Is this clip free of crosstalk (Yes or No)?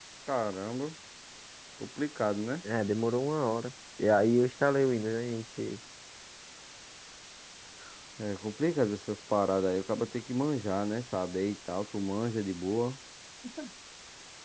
Yes